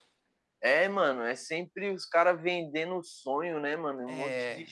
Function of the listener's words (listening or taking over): listening